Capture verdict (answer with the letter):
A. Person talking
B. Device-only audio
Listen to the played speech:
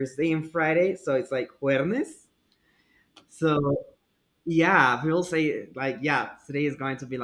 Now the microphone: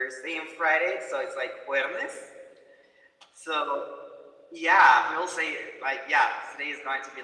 B